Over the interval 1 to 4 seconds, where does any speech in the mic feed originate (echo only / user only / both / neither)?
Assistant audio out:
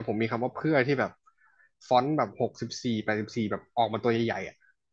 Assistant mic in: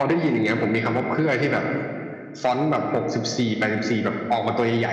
echo only